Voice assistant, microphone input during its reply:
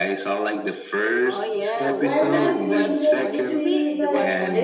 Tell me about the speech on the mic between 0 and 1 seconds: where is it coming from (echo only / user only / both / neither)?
echo only